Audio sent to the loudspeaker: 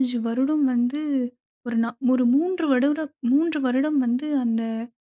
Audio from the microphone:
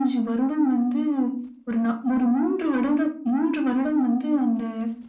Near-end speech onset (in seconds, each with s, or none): none